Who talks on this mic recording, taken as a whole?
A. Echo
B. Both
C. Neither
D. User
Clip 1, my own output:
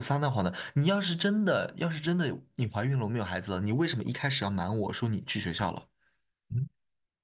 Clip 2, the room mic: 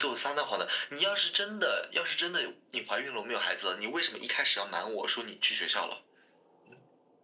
A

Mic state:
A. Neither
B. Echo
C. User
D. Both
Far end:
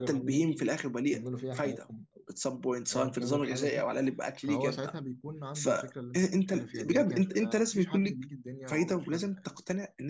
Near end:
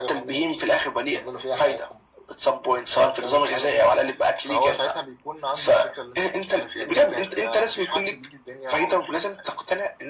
B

